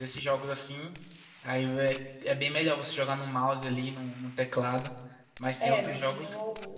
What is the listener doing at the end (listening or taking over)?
taking over